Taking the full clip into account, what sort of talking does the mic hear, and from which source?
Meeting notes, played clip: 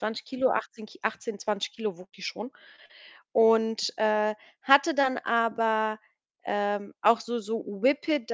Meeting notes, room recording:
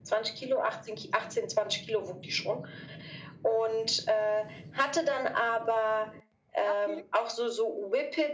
both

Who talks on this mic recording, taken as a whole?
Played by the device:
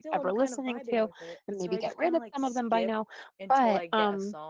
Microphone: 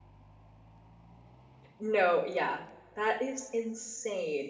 user only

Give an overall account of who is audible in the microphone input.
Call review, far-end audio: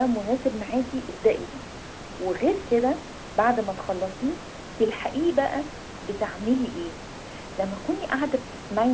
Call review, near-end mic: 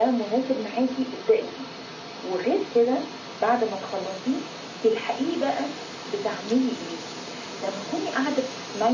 echo only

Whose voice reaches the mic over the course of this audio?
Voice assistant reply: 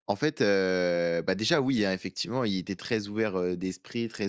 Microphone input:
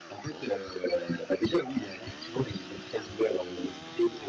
echo only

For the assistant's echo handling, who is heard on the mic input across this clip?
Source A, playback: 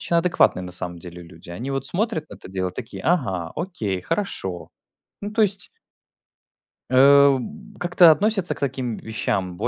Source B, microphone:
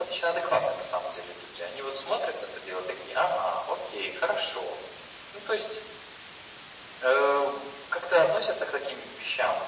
echo only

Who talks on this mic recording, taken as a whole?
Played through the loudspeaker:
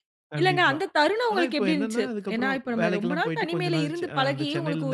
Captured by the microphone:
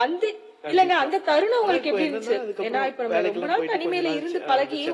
echo only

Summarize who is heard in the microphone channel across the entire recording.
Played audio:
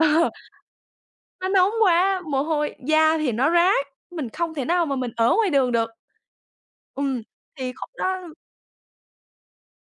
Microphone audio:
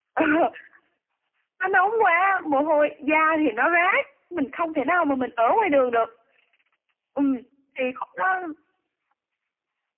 echo only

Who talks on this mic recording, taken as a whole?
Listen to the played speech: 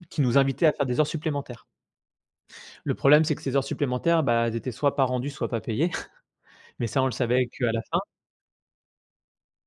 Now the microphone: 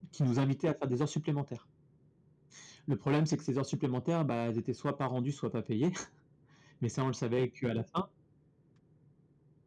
echo only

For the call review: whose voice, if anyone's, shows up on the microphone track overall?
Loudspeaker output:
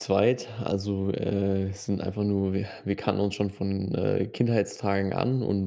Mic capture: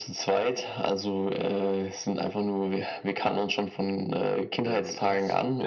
both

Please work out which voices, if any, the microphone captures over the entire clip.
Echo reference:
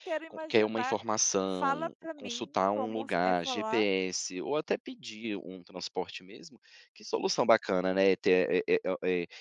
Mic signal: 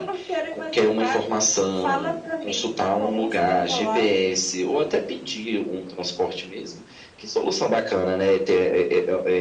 echo only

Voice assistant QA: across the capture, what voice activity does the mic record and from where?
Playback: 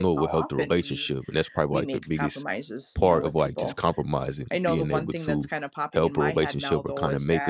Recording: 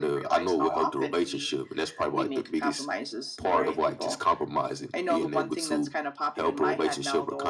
both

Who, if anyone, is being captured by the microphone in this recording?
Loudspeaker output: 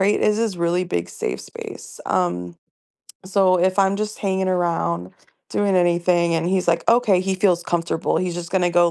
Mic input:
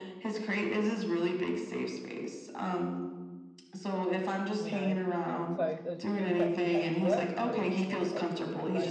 both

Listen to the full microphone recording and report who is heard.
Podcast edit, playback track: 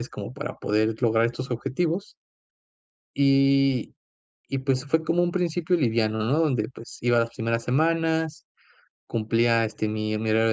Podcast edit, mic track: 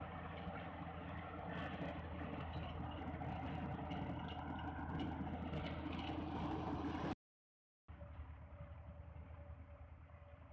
neither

